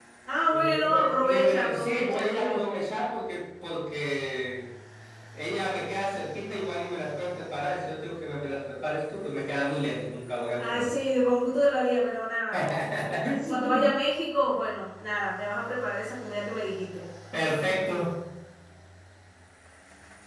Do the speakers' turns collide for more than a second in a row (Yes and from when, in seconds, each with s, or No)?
Yes, from 0.5 s